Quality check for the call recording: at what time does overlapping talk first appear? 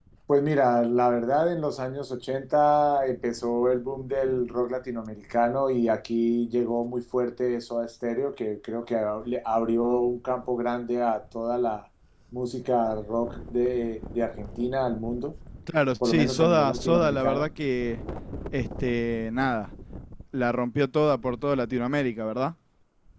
16.0 s

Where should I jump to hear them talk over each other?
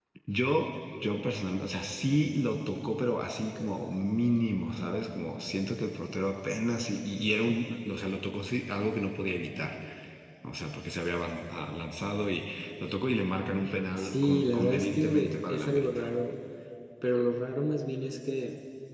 14.0 s

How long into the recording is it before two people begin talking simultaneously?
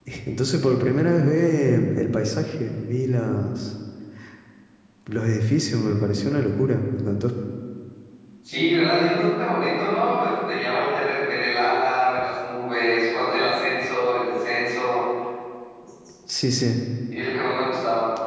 none

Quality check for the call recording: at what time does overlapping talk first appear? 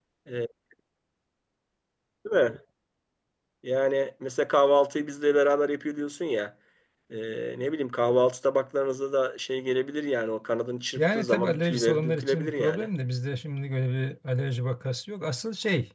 11.0 s

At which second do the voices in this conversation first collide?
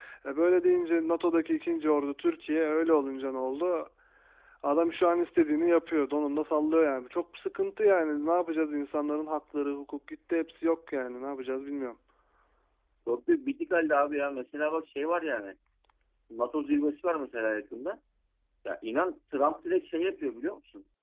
none

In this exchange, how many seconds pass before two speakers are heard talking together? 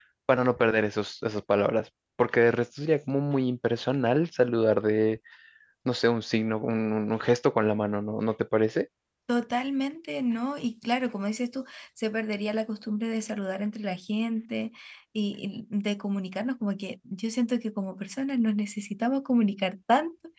none

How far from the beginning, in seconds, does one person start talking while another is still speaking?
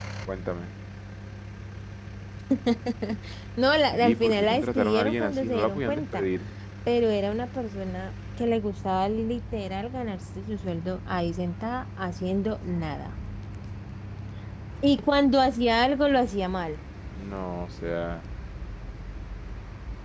3.9 s

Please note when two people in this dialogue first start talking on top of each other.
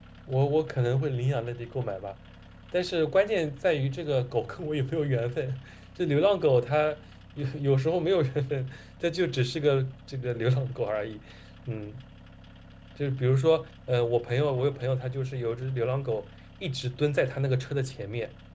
none

